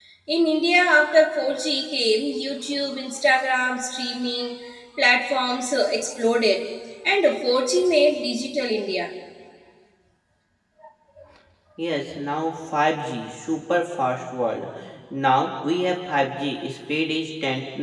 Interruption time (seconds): none

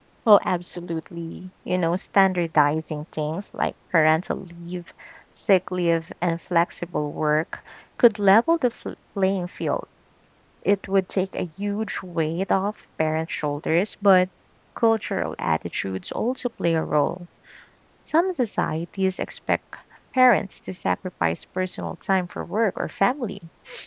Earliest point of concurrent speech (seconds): none

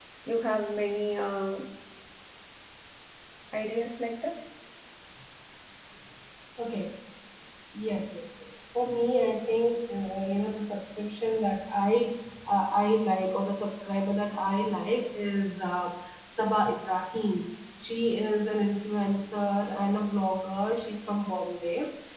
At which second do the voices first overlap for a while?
none

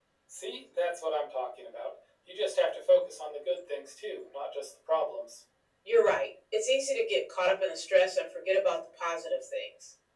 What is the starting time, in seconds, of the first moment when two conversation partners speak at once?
none

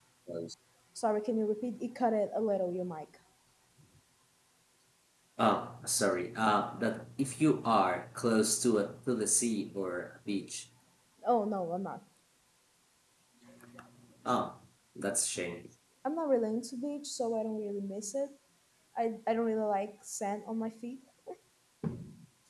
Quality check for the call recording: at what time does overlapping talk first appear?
none

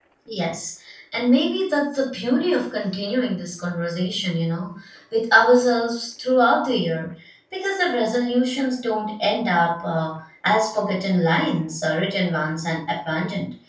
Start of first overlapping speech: none

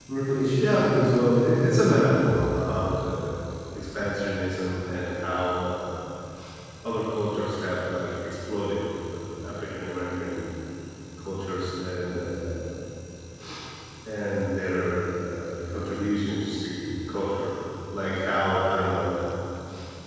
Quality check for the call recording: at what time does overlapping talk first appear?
0.6 s

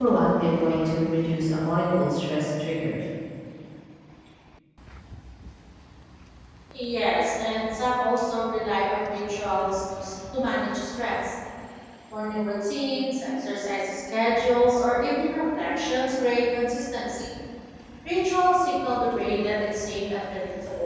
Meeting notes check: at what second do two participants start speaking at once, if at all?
none

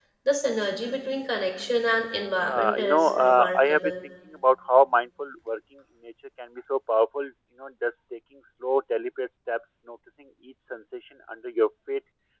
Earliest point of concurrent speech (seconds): 2.4 s

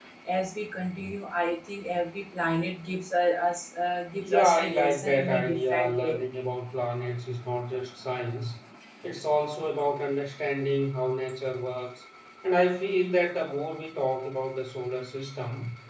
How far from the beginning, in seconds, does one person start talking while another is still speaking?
4.2 s

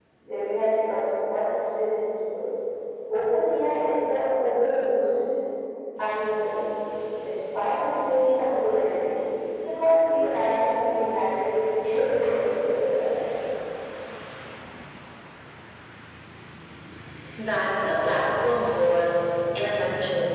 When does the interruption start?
none

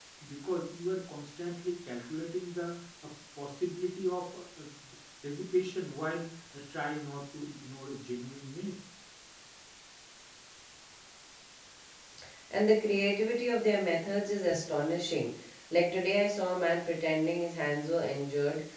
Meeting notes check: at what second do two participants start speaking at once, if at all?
none

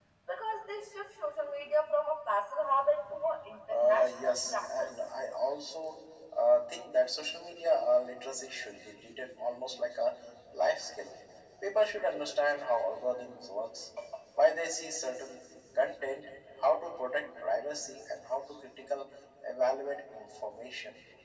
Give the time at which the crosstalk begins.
3.7 s

